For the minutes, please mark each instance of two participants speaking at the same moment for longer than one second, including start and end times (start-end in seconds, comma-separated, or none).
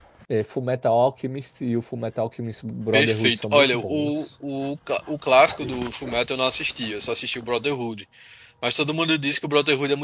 2.9-4.3